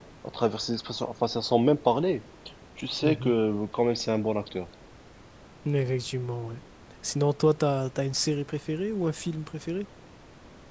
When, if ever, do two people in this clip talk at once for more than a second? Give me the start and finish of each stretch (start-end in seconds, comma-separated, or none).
none